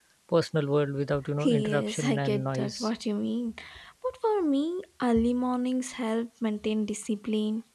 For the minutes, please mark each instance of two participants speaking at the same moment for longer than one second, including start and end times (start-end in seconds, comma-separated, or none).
1.4-2.9